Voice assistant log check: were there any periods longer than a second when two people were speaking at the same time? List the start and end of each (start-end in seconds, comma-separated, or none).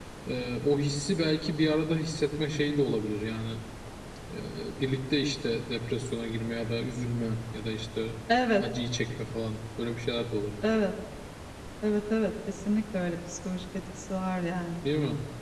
none